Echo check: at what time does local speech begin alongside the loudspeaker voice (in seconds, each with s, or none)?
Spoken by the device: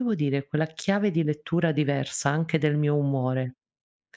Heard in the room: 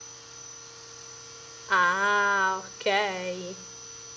1.7 s